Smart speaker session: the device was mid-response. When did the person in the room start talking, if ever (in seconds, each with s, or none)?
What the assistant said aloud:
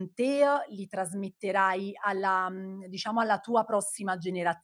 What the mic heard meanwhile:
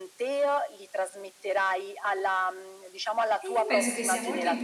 3.4 s